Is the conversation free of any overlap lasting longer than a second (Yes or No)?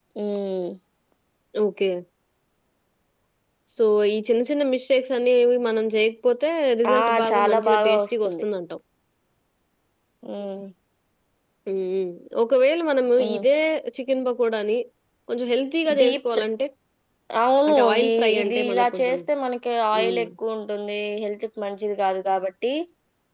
No